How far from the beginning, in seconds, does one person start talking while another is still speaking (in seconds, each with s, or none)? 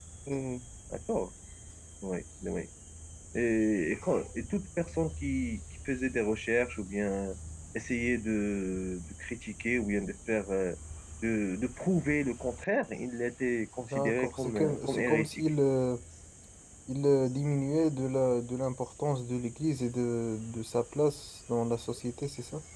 13.9 s